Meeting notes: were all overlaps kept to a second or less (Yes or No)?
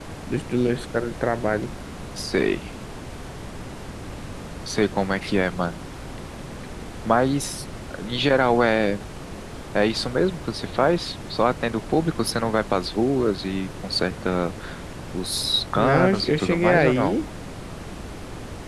No